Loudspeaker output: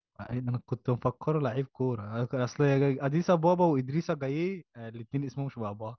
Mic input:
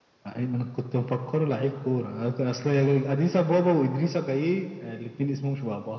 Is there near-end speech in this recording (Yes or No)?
No